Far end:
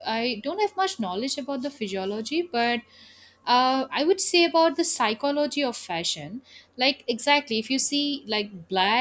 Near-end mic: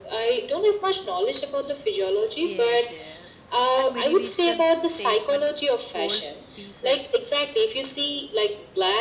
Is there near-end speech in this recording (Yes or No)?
Yes